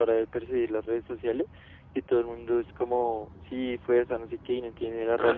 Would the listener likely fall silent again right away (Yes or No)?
Yes